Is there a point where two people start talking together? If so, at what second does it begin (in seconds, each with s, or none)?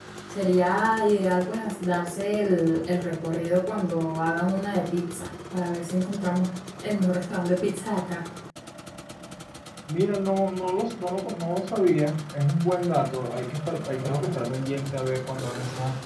none